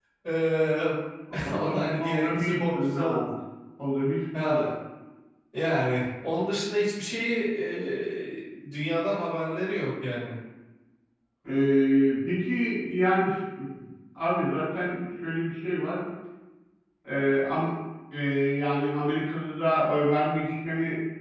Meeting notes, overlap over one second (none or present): present